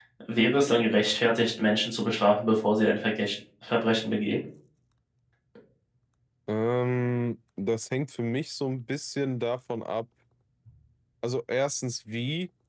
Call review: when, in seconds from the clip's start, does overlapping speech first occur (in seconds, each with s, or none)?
none